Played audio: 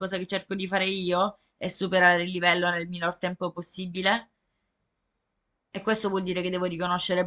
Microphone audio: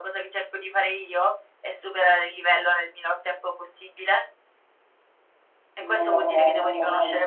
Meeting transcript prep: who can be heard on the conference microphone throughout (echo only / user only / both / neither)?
both